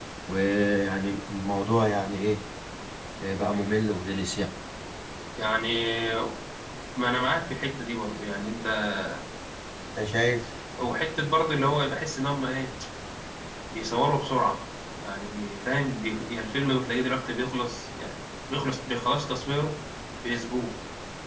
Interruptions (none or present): none